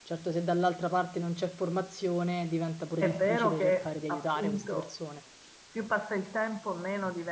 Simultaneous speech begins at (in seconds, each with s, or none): 3.0 s